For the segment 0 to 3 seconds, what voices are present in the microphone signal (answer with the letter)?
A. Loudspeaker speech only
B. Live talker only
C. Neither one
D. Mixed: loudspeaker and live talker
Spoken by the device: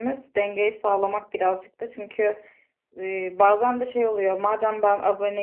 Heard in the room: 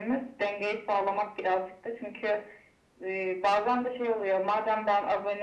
A